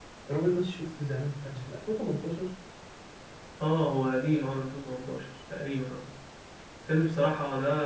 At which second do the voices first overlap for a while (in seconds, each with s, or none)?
none